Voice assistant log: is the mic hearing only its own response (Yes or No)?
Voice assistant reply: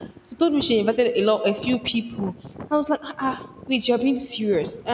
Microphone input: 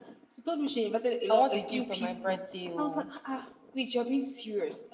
No